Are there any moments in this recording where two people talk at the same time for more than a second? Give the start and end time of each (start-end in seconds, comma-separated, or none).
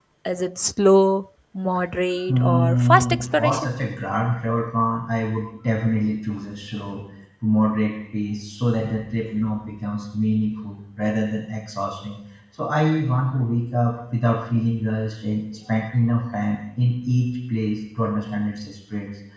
2.3-3.7